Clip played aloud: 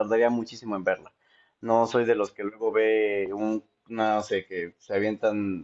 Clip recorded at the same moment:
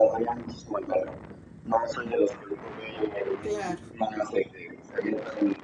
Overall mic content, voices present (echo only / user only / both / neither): both